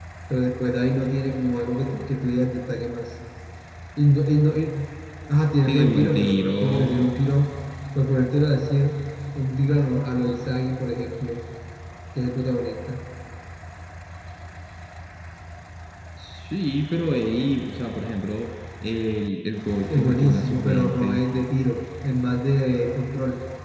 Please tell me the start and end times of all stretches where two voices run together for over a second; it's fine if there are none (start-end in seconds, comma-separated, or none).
5.7-7.0, 19.9-21.2